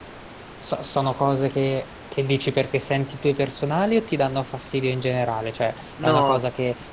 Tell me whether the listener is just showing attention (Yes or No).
Yes